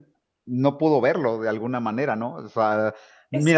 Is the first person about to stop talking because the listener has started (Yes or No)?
No